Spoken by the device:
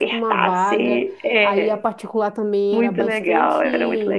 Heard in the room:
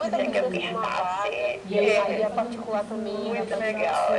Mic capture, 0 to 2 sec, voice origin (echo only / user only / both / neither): both